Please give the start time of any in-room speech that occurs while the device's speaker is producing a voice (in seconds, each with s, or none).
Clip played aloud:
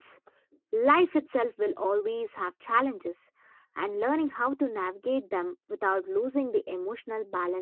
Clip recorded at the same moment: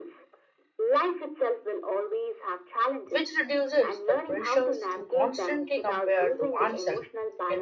3.0 s